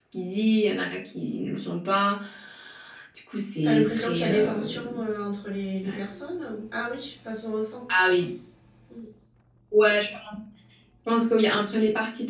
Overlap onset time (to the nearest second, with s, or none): 4 s